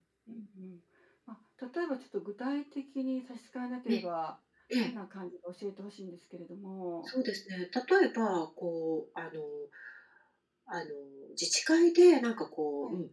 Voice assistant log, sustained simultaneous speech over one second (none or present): none